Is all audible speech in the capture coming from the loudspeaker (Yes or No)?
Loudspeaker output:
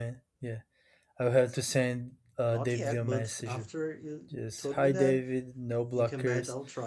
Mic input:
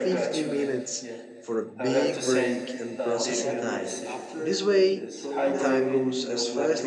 No